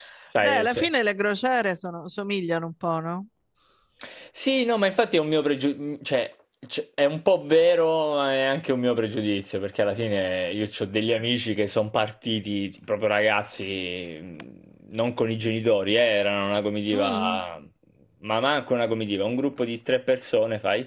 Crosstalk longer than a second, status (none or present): none